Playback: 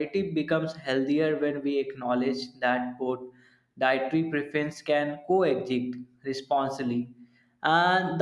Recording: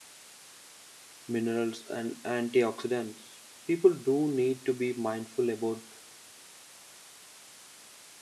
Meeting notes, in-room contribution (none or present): present